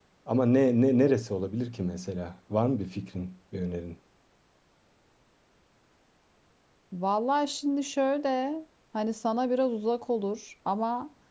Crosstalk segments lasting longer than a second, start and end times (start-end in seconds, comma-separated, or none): none